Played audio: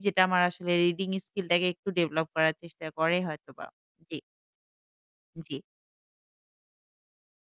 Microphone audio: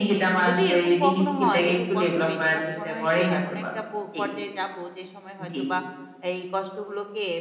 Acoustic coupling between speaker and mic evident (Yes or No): Yes